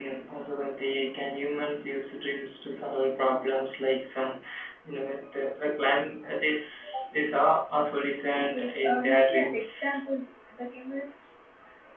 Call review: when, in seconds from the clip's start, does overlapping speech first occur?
8.5 s

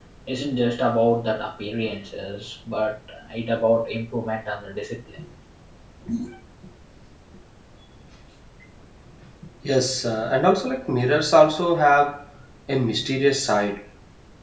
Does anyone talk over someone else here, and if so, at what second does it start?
none

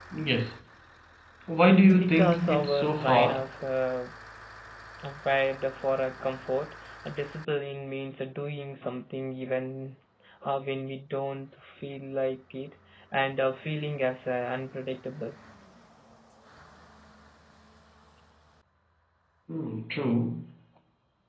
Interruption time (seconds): 2.0 s

